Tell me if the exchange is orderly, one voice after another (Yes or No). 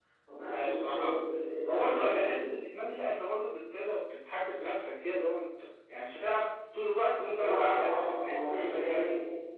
No